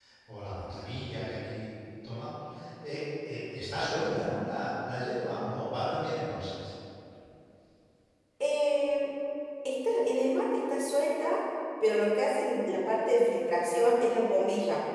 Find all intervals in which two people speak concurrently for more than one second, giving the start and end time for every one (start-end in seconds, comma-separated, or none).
none